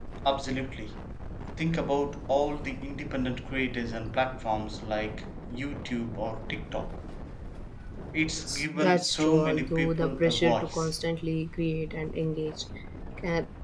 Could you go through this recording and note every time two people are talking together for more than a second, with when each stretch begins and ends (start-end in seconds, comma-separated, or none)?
8.4-10.9